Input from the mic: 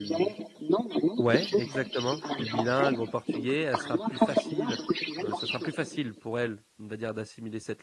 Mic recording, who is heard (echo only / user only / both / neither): both